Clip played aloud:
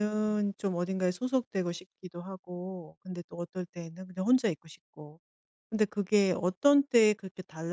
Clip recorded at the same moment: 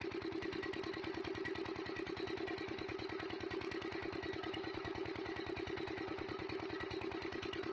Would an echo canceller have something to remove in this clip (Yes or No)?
No